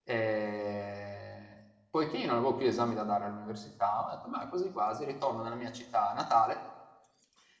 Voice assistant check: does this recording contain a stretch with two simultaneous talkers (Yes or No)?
No